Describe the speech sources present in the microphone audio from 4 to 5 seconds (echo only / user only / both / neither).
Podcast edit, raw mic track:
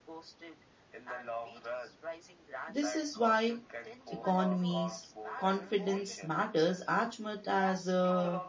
both